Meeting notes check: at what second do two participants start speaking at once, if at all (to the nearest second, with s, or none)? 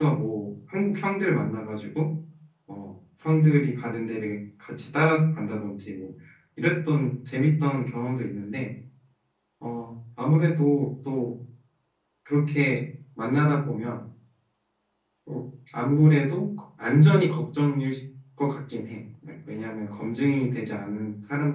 none